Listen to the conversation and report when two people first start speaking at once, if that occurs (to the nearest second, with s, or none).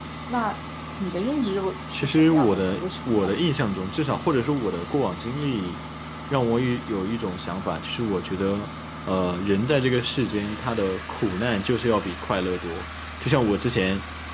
2 s